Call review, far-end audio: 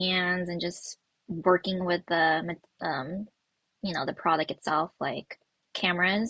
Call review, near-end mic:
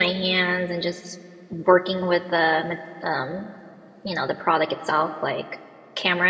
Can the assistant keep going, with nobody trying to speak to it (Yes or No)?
Yes